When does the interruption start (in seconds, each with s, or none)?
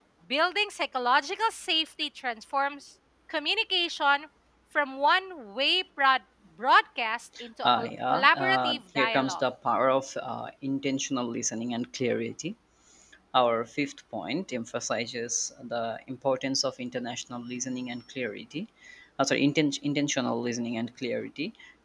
7.6 s